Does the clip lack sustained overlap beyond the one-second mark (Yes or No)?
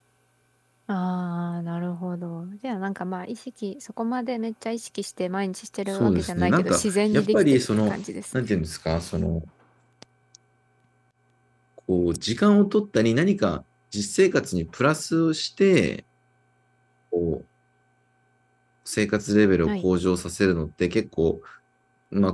No